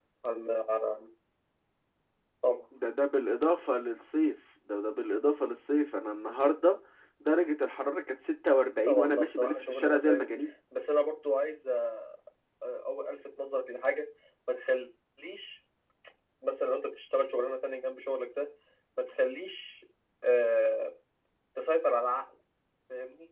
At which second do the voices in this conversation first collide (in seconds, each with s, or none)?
8.9 s